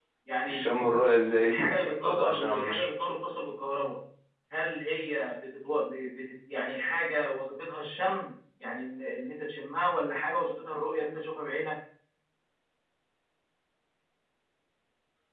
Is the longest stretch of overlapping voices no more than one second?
No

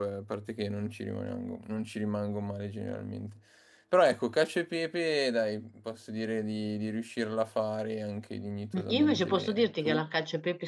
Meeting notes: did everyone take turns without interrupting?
No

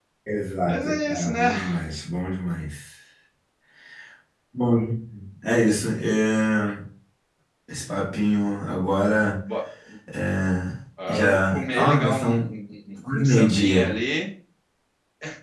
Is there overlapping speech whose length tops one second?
Yes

